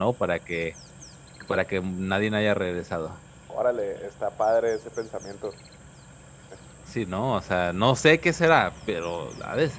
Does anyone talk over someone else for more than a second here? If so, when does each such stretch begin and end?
none

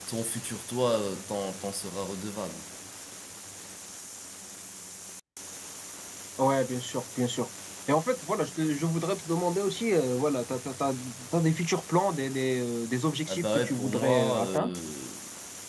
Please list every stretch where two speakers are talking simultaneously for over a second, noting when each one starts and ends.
13.3-14.8

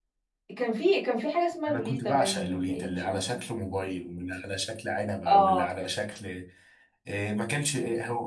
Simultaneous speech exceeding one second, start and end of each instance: 1.7-3.4

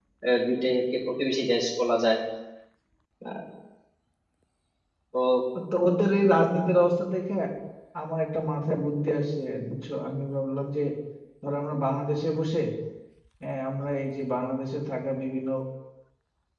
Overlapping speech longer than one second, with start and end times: none

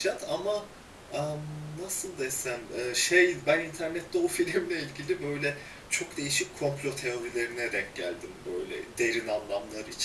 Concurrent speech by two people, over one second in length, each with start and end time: none

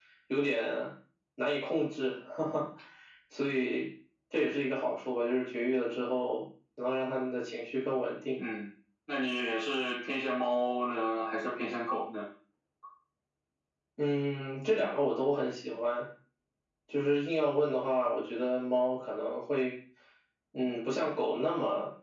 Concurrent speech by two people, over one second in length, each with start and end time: none

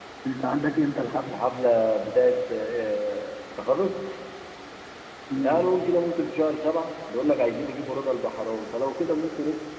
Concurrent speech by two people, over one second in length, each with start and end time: none

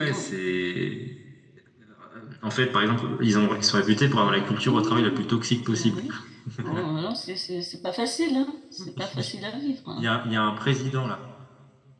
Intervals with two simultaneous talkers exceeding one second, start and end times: 4.2-6.0

